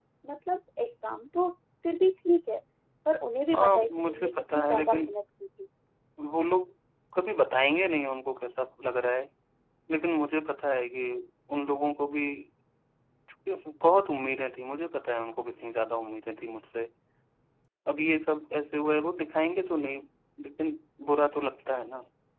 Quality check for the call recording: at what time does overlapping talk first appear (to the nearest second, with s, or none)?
4 s